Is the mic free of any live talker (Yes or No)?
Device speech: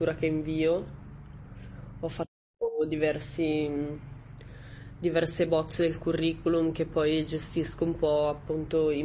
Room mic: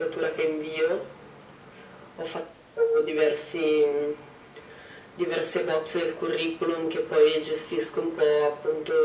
Yes